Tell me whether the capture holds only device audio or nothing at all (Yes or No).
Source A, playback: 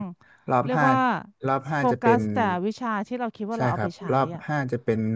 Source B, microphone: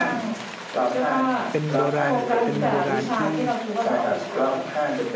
No